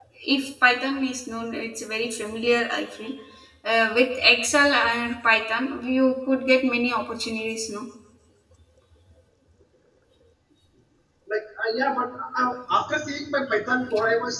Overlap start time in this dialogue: none

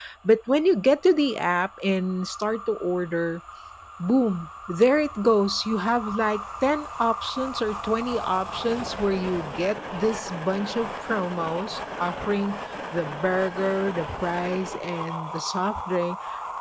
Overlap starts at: none

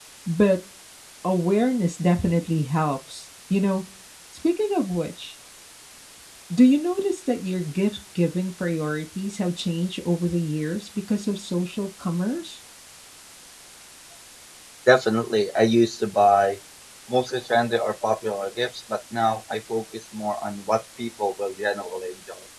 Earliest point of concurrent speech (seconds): none

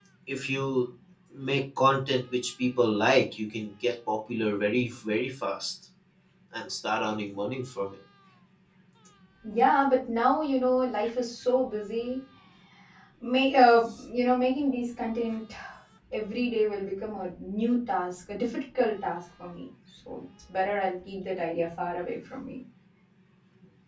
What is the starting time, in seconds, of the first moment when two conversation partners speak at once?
none

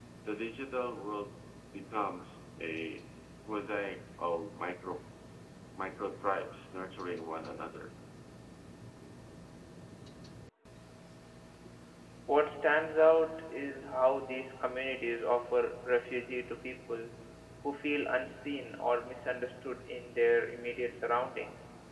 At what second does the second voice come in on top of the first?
none

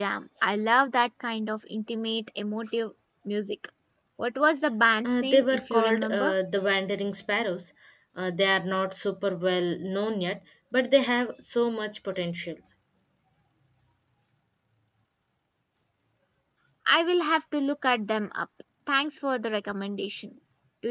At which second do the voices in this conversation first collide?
5.0 s

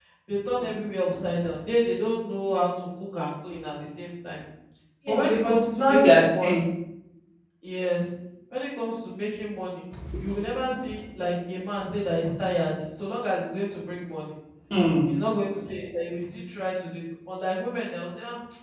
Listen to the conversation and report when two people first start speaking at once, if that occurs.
5.1 s

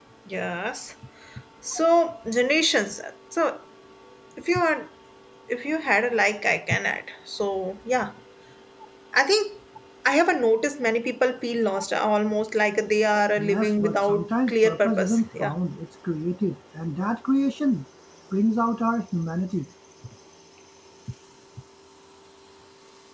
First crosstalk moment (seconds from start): 13.4 s

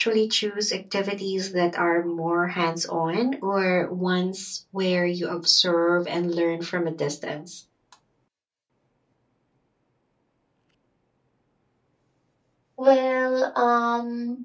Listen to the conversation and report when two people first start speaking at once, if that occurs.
none

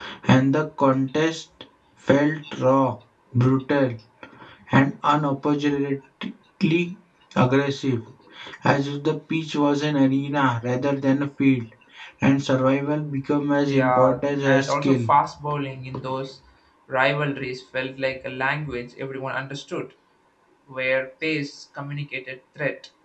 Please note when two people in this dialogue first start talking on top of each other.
13.7 s

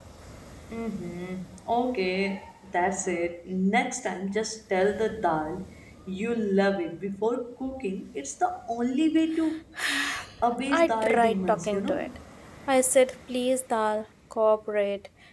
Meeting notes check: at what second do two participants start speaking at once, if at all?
10.7 s

